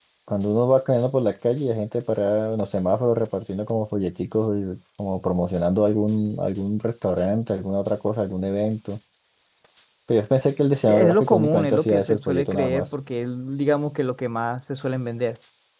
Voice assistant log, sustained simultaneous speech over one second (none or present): present